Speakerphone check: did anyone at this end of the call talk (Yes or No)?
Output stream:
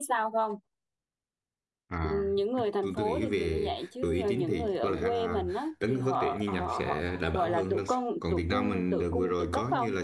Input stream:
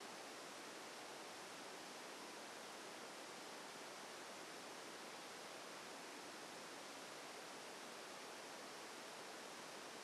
No